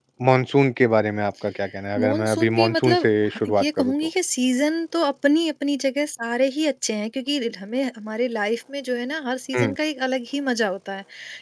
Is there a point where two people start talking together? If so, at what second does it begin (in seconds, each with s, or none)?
2.0 s